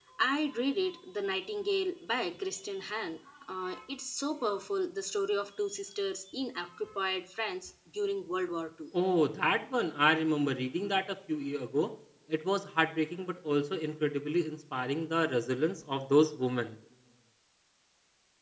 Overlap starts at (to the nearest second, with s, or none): none